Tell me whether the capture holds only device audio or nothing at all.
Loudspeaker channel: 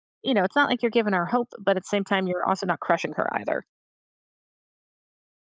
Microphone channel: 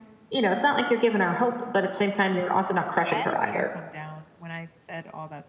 No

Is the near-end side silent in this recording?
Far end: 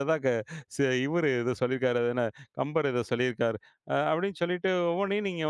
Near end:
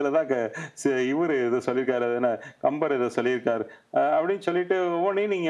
Yes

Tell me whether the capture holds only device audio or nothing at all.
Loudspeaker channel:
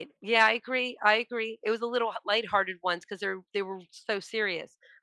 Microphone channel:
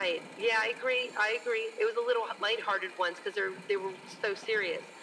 Yes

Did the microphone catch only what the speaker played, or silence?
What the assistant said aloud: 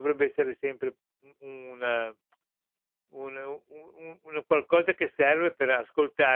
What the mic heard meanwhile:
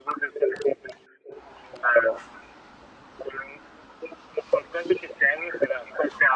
Yes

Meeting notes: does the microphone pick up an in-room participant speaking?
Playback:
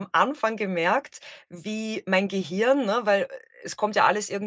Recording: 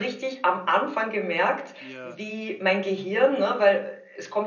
Yes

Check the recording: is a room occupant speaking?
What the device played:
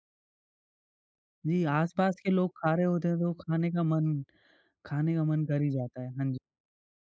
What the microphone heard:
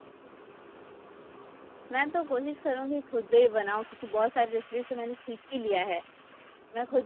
Yes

